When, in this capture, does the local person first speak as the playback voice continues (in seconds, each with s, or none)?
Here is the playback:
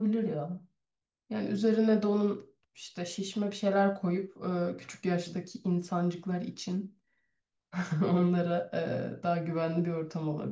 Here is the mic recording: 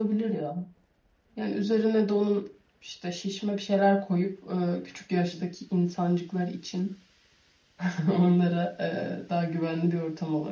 none